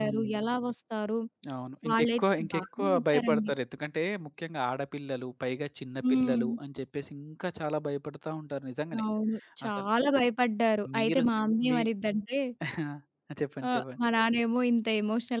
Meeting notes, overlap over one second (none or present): present